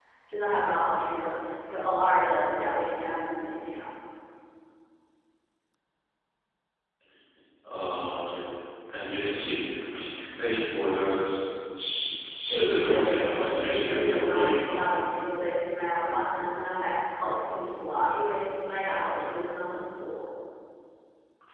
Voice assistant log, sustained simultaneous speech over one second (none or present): present